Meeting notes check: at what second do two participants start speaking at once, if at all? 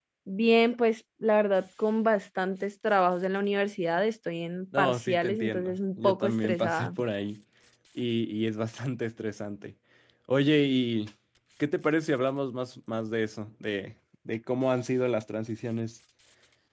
4.7 s

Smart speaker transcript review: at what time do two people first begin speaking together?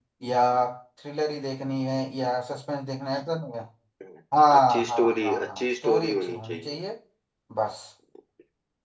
4.6 s

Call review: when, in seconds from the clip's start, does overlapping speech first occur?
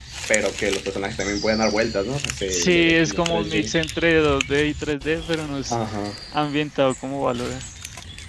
2.5 s

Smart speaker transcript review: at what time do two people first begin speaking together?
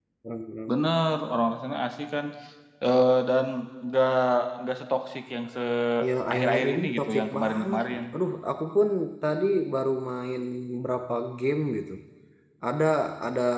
6.3 s

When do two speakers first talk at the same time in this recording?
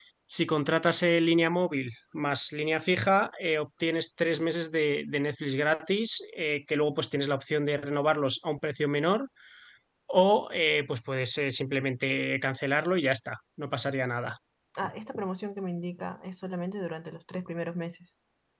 none

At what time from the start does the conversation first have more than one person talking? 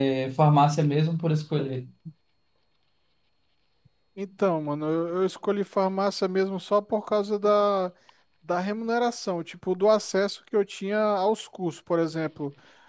none

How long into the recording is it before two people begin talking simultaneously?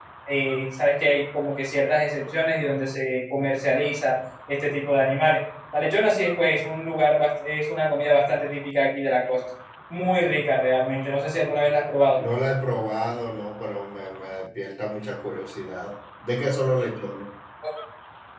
none

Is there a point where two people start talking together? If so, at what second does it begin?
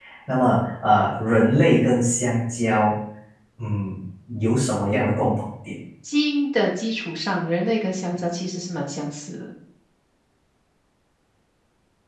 none

